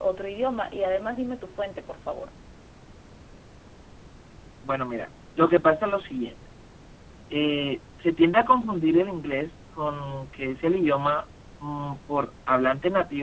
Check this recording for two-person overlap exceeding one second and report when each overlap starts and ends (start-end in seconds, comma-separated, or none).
none